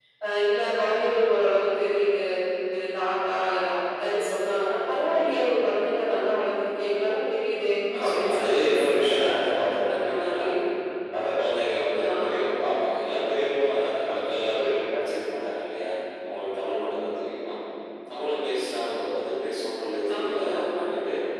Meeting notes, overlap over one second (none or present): present